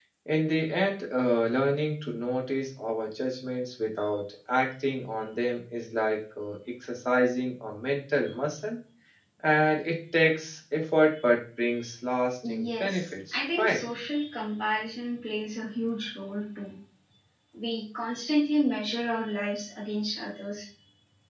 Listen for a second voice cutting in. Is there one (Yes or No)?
Yes